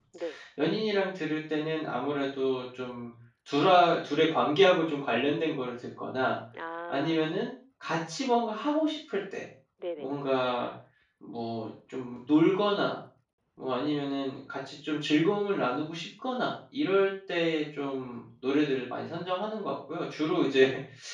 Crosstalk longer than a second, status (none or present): none